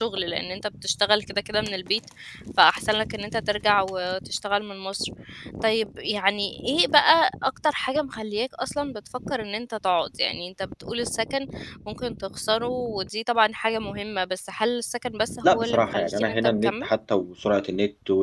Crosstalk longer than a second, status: present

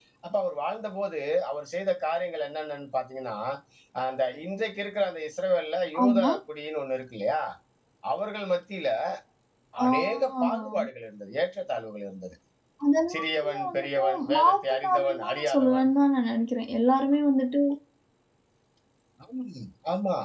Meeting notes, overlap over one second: present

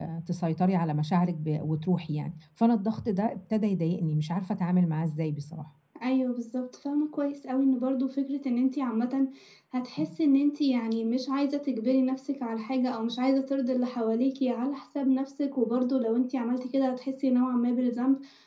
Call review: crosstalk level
none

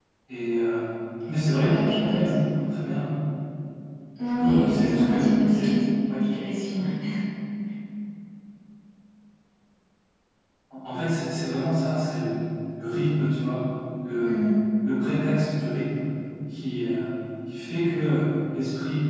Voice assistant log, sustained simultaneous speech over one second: present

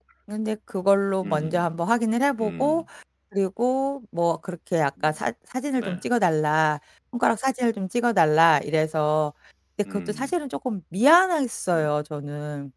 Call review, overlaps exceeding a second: none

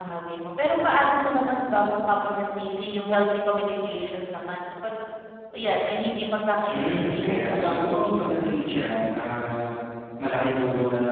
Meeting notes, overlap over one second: present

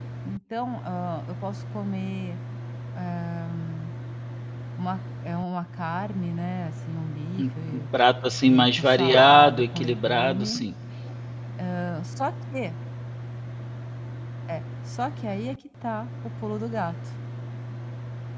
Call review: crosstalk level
present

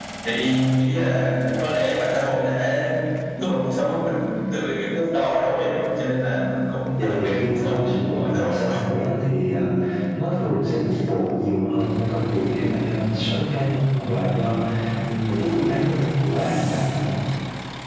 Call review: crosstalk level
present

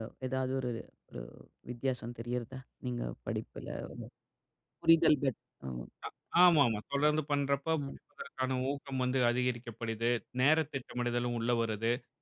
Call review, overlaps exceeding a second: none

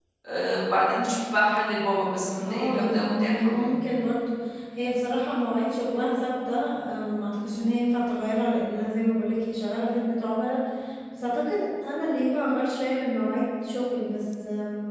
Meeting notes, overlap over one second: present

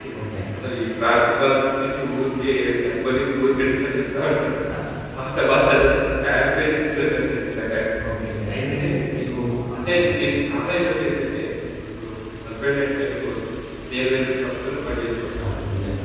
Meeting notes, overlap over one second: none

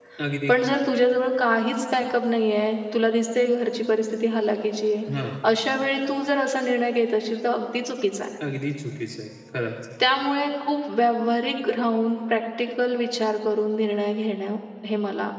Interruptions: none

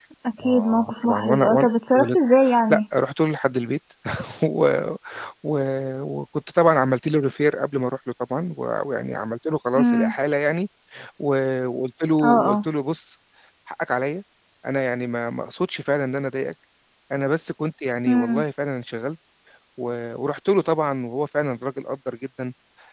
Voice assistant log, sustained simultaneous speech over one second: present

